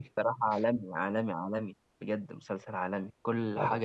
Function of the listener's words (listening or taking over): listening